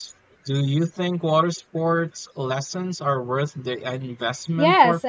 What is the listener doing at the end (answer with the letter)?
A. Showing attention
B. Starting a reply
B